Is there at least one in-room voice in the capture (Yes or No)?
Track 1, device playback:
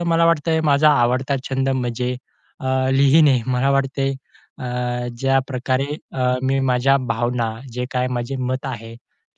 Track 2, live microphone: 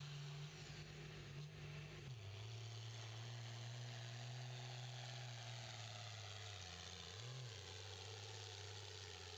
No